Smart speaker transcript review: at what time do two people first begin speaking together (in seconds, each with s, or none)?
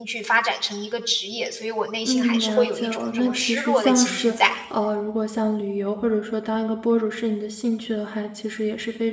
2.0 s